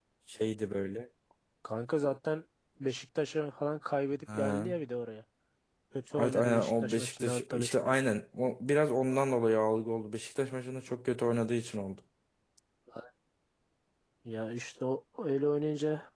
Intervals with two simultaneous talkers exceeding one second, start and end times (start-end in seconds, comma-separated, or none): 6.2-7.9